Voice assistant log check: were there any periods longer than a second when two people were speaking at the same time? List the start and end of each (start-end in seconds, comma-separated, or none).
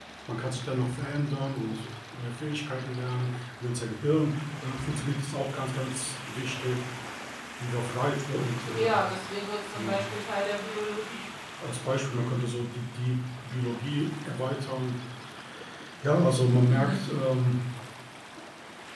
none